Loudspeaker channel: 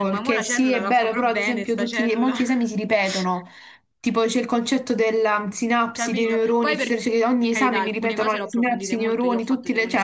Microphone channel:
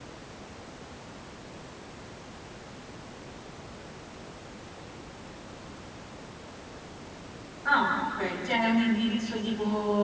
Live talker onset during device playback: 7.7 s

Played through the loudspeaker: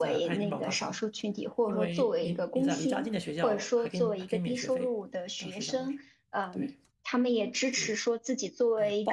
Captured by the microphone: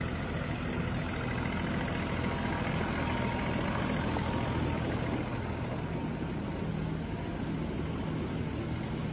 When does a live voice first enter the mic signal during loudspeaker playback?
none

